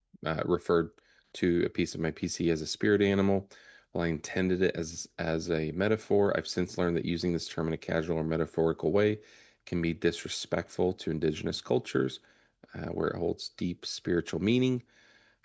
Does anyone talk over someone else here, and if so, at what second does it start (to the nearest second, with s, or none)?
none